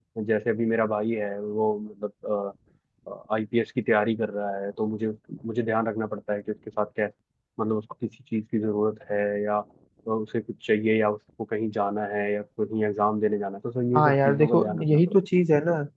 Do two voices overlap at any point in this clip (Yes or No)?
Yes